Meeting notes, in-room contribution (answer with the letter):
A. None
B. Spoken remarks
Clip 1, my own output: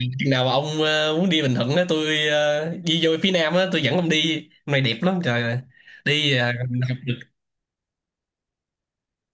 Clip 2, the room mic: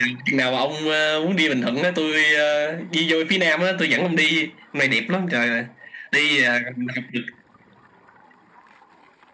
A